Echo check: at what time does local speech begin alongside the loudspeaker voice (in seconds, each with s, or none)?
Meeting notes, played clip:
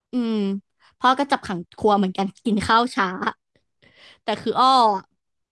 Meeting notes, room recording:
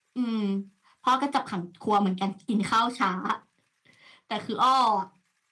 none